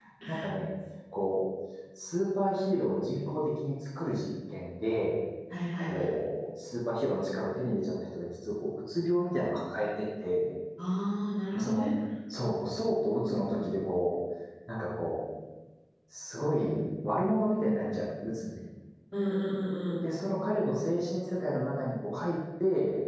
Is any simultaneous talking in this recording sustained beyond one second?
No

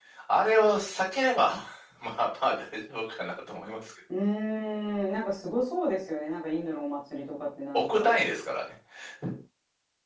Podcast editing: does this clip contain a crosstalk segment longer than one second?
No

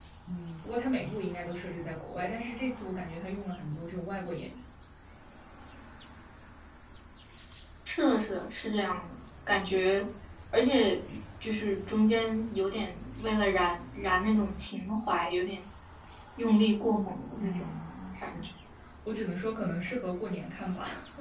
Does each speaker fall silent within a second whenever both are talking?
Yes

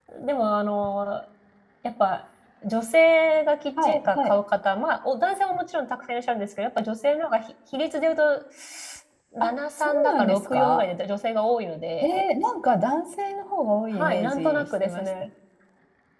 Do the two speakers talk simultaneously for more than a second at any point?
Yes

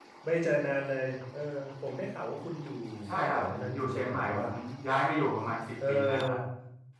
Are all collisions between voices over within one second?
No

